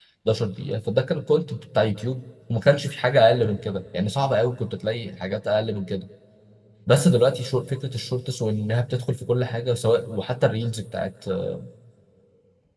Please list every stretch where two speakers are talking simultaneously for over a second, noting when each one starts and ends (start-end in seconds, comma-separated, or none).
none